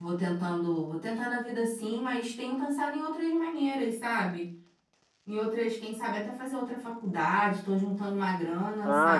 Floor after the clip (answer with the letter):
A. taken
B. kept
A